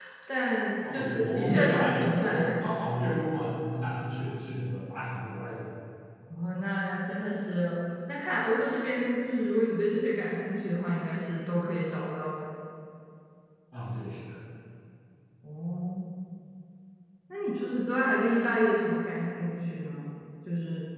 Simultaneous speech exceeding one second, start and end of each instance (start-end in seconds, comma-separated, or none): 0.9-2.5